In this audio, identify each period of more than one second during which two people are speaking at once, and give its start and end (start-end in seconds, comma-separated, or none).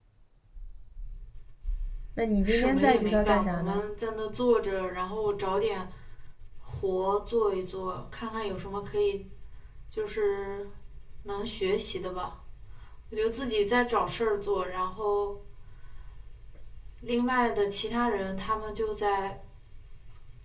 2.5-3.8